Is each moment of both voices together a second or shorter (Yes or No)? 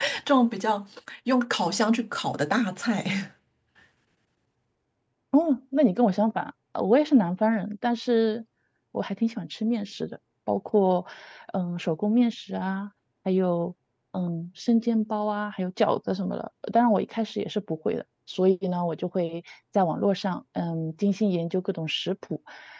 Yes